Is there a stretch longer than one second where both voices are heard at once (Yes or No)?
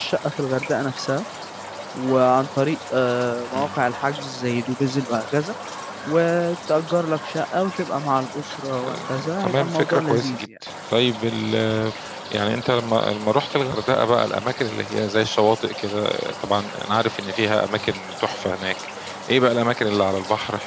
Yes